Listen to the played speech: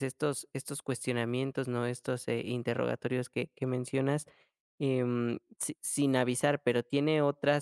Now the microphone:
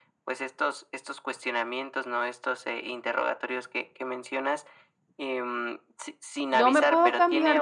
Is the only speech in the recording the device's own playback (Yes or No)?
No